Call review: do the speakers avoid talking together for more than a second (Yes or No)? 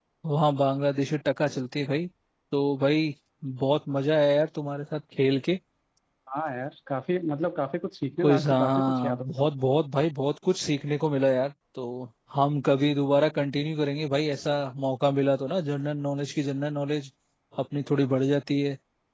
No